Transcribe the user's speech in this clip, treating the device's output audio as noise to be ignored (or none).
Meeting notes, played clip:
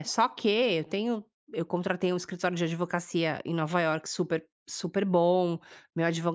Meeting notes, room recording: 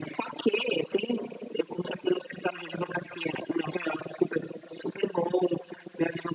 none